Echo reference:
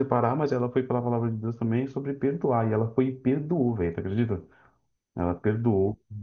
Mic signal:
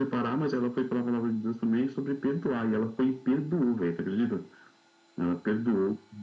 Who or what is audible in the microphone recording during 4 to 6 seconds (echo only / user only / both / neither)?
echo only